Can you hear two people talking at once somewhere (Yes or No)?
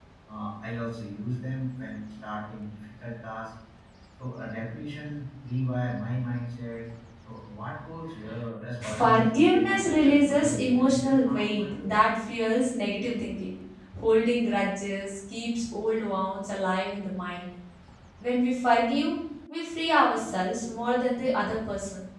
Yes